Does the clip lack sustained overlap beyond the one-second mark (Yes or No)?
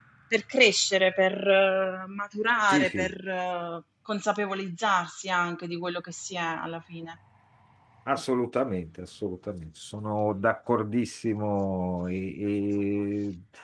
Yes